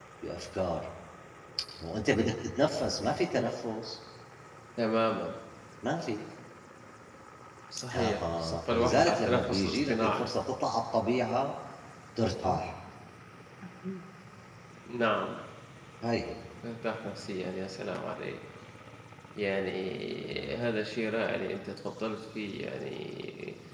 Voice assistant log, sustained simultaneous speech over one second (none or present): present